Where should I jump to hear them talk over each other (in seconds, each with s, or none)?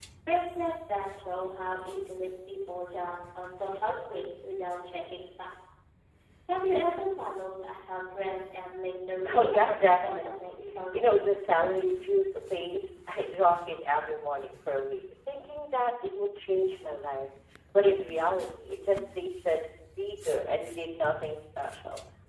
9.3 s